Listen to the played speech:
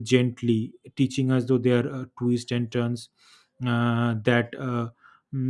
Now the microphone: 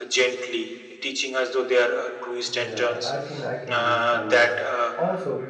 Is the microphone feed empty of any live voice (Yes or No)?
No